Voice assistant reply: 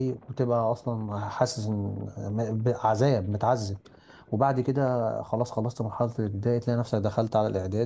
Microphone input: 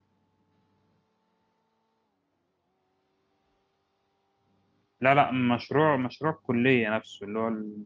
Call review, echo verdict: none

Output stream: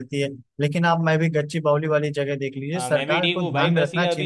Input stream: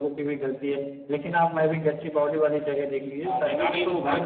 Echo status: present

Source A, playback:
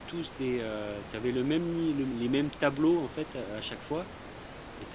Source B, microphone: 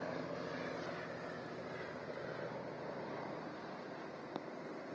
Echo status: none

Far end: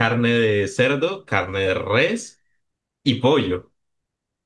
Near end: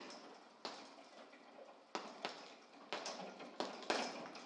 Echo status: none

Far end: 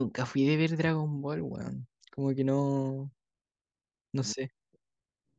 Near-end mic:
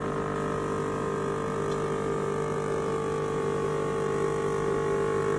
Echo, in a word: none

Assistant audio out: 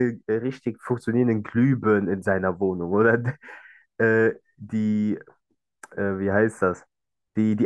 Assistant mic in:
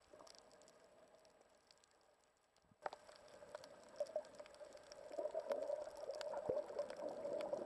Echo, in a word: none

